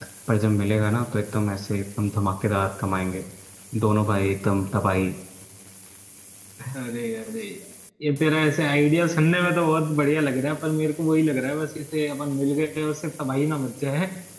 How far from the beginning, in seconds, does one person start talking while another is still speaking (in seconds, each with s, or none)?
none